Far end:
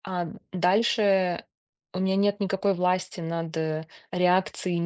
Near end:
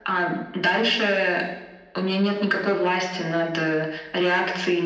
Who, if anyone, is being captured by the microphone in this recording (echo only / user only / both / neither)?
echo only